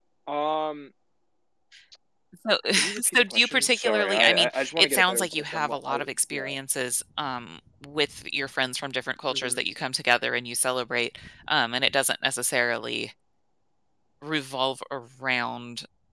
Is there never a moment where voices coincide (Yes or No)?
No